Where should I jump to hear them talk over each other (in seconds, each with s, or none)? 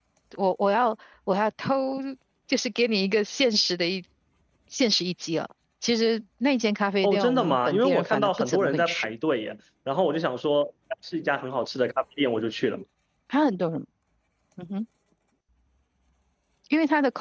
7.0 s